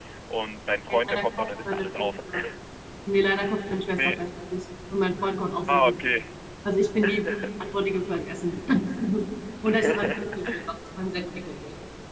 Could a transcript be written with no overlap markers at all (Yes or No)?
No